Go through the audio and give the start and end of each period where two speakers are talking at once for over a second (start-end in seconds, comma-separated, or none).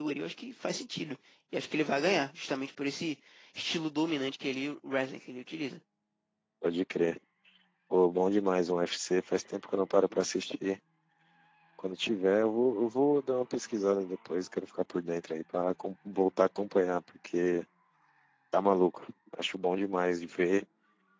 none